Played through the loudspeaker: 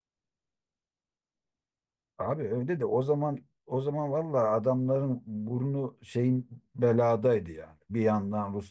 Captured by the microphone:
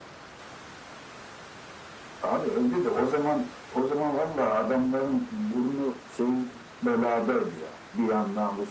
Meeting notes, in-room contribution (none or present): none